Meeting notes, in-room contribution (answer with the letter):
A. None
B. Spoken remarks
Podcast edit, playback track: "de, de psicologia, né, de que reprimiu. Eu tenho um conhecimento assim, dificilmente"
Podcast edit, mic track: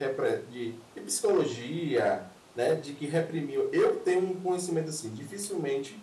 A